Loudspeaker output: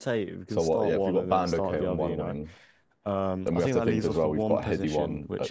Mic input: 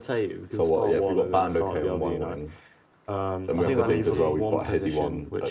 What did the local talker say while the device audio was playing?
Verratti?

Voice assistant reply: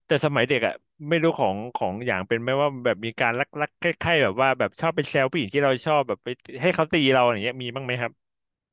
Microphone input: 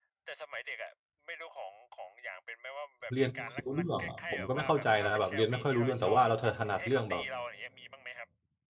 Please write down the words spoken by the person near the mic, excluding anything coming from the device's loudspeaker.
เรียนไม่ค่อยรู้เรื่องอะผมก็ไม่เข้าใจนะแบบเรียนไม่ค่อยรู้เรื่องแต่ว่าเราถนัดเรื่องแบบ

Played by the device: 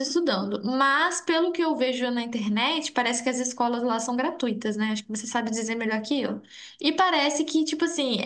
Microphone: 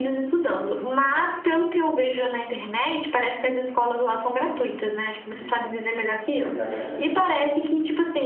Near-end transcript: Uhum. Exatamente.

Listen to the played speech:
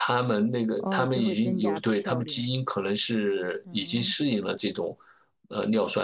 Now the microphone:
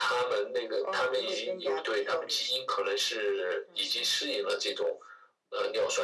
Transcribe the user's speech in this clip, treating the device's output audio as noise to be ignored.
none

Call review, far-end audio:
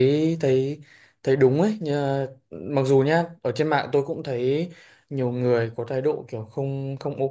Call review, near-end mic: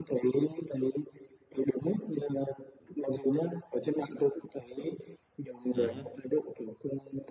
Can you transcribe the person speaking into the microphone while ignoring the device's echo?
Ừ. hứ,

